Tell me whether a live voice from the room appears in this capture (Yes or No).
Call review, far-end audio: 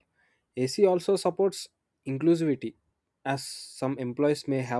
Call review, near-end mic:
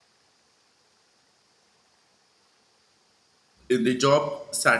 Yes